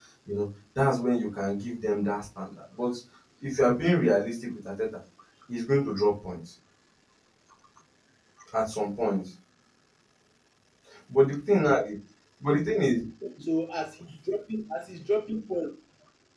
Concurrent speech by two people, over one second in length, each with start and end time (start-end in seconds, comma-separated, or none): none